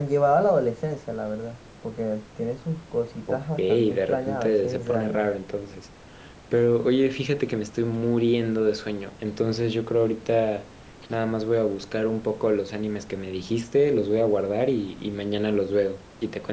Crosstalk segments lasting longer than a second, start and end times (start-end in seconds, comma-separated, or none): 3.3-5.3